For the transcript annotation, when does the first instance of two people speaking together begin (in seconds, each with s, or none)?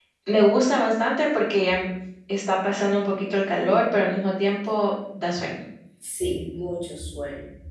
none